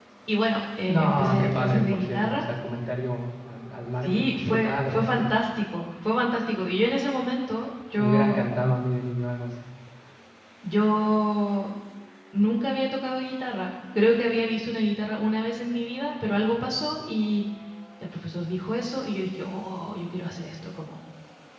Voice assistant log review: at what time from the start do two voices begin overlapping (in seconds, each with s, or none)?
0.9 s